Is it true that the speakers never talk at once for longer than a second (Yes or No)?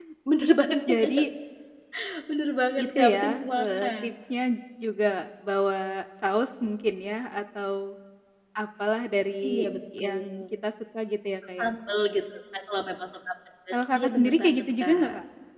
No